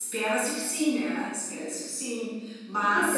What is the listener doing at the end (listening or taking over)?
taking over